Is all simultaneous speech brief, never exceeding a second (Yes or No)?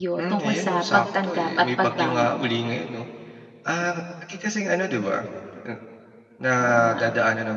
No